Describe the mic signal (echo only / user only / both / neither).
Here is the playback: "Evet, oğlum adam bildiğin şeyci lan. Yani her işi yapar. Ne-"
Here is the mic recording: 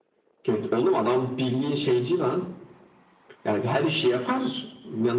echo only